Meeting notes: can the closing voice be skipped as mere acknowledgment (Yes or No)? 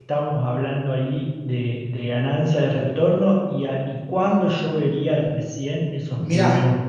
No